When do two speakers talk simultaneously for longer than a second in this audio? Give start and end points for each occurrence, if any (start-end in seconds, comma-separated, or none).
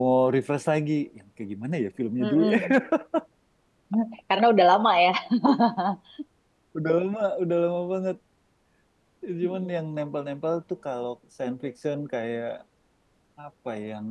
none